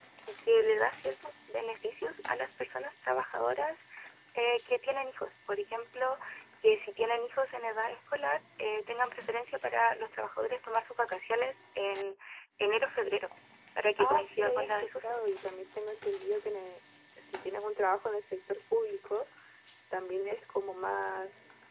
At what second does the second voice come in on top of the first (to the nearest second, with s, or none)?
14 s